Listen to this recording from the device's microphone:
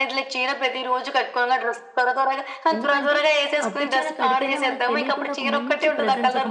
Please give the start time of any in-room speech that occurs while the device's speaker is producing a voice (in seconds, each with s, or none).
2.8 s